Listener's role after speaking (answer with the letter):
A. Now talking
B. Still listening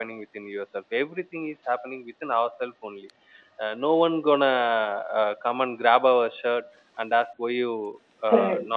B